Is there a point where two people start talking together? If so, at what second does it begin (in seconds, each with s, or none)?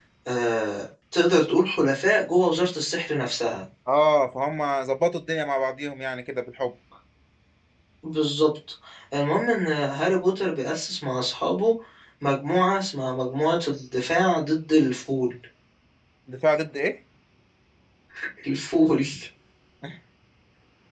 none